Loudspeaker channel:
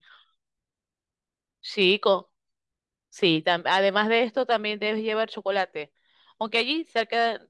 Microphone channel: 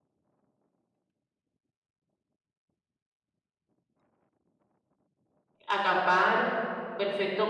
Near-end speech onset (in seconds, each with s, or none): 5.7 s